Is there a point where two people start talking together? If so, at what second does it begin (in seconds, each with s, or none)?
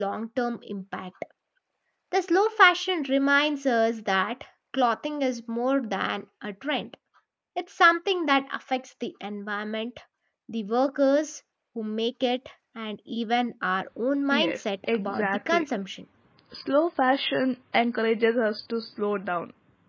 14.3 s